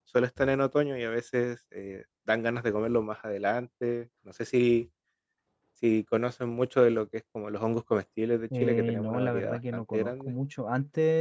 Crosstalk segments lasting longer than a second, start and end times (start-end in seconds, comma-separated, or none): 8.6-10.3